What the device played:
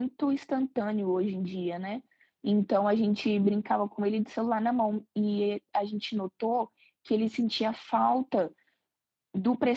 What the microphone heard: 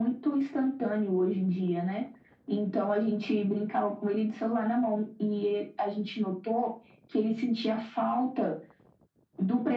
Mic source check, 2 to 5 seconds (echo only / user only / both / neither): echo only